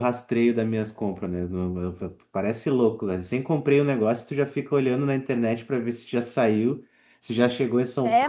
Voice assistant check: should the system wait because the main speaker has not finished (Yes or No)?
No